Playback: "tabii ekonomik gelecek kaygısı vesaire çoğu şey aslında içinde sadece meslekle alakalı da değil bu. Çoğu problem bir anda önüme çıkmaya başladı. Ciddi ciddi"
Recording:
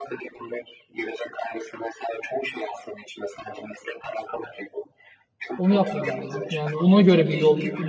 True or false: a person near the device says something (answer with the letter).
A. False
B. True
B